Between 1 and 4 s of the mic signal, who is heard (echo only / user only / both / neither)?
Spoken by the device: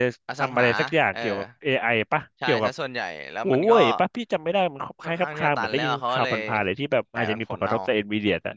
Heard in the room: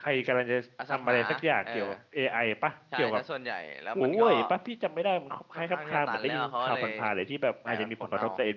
echo only